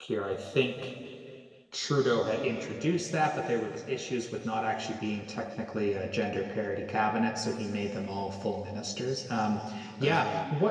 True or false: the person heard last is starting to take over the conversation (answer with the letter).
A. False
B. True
A